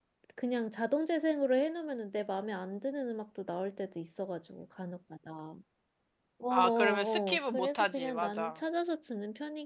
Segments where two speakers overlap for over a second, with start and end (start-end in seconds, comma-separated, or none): 6.5-8.6